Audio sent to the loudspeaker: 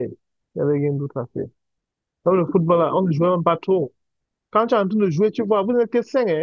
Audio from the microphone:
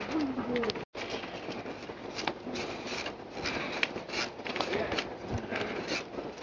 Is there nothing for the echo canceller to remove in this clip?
Yes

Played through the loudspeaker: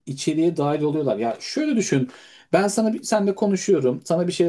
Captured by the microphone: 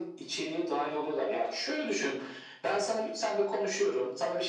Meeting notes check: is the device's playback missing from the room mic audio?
No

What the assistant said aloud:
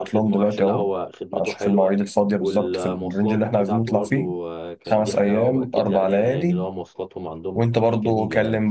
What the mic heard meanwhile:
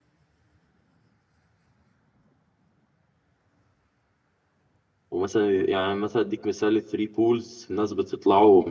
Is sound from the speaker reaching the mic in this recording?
No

